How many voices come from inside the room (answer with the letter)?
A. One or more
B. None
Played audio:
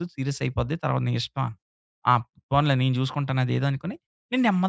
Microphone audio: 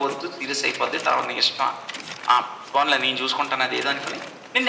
B